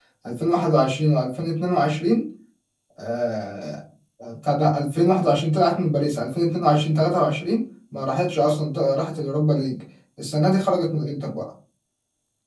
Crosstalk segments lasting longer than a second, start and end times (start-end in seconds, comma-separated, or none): none